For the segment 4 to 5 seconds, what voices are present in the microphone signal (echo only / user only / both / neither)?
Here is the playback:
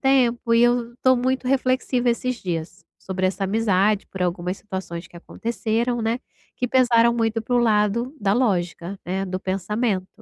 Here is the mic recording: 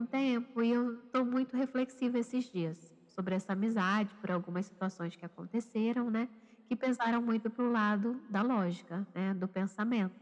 echo only